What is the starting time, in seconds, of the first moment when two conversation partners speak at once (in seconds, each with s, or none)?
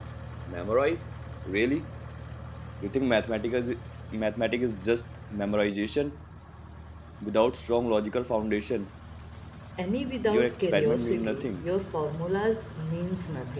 10.3 s